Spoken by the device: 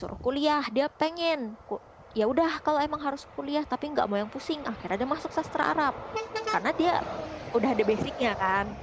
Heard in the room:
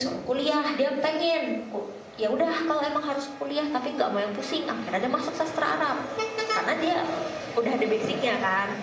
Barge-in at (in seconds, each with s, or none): none